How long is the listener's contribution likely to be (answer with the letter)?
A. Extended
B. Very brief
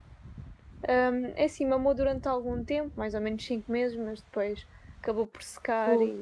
B